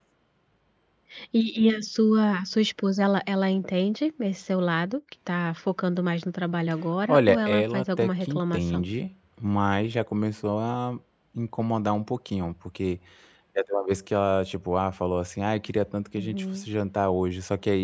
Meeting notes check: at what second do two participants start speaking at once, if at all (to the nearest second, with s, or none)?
7 s